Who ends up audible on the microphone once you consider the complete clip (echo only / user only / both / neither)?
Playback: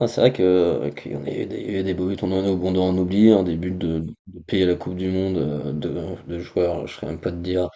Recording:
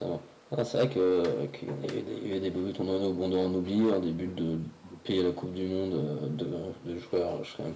echo only